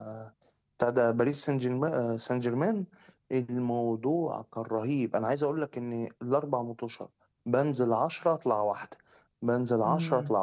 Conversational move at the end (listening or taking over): listening